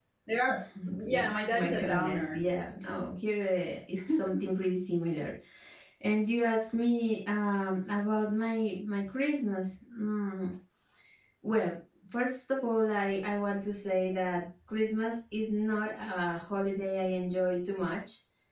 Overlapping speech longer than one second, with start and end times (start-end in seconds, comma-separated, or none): 1.1-2.4